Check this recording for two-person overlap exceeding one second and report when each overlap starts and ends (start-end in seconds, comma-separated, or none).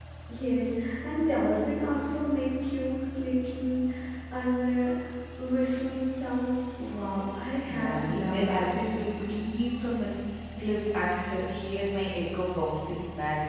7.7-9.2